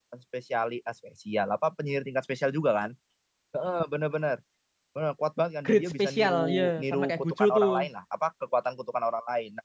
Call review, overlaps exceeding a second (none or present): present